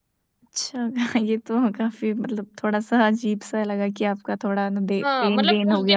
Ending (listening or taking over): taking over